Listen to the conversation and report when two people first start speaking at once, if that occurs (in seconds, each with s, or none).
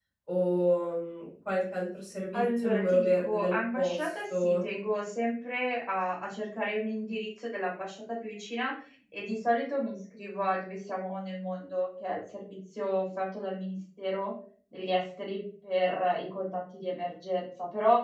2.3 s